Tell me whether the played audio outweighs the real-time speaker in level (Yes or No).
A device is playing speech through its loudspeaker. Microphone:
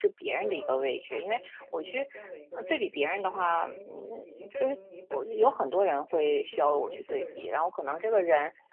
No